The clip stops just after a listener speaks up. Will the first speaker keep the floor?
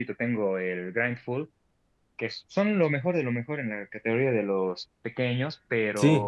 No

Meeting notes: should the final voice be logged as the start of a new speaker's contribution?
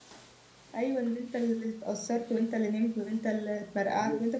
Yes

